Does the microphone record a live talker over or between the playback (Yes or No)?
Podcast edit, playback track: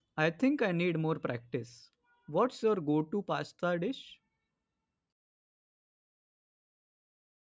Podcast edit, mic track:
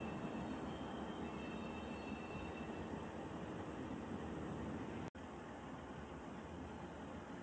No